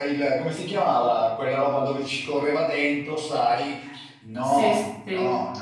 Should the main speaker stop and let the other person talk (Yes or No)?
No